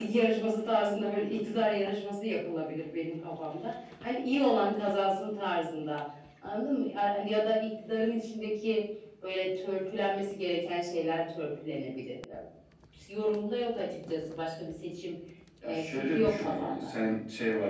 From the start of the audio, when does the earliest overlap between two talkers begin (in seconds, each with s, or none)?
15.6 s